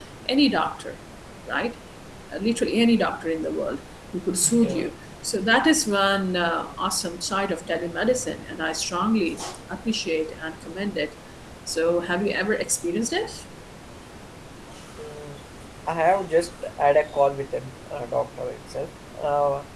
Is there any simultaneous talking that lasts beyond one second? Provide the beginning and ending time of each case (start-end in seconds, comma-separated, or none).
none